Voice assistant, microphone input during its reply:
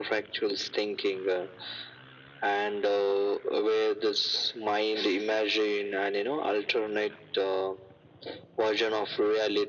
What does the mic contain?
echo only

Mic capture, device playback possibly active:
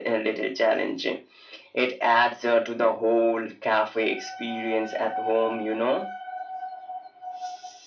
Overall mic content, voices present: echo only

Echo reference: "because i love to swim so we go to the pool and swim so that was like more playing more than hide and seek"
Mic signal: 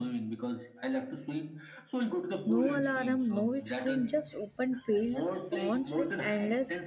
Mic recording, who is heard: both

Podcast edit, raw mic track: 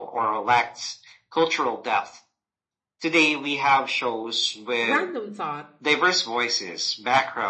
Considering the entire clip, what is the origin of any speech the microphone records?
both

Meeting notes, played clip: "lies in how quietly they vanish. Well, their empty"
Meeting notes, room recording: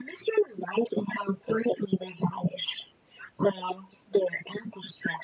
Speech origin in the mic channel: echo only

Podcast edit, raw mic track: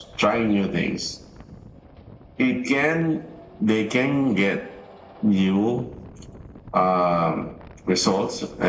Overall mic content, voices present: echo only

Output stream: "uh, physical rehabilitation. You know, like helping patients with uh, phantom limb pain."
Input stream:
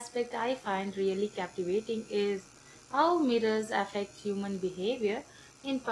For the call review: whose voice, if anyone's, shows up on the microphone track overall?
user only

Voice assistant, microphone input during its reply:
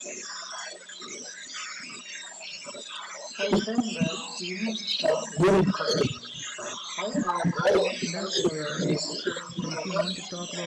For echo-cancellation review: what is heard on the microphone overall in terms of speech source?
both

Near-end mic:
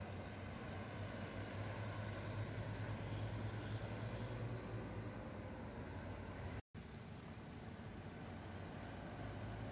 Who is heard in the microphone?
neither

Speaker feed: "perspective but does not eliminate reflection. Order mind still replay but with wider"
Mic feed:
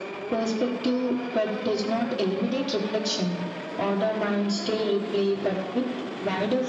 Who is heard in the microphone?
echo only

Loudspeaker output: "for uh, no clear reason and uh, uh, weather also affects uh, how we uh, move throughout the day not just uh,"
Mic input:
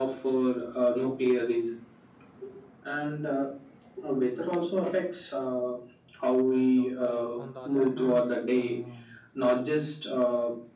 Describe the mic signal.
both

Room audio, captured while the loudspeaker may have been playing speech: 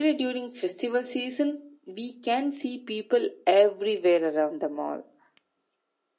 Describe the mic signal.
echo only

